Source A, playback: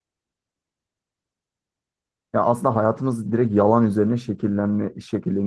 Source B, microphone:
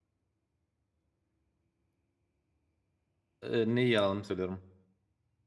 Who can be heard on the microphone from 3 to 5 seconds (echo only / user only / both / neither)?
user only